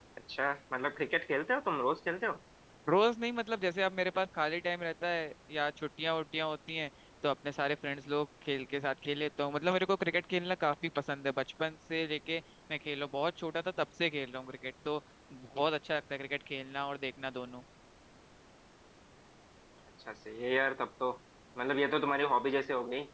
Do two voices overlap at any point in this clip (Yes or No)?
No